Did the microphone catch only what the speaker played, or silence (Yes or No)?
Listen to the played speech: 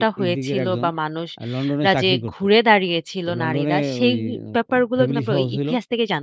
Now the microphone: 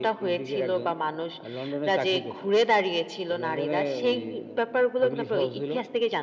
Yes